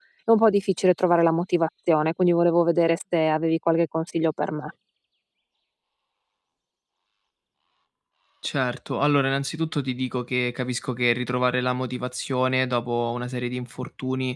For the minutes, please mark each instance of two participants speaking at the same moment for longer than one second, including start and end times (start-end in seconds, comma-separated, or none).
none